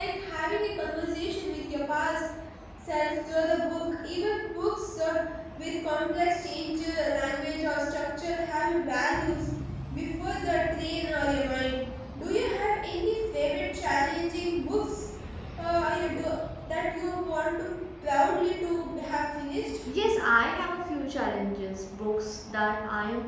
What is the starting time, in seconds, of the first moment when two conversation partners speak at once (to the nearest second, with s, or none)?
none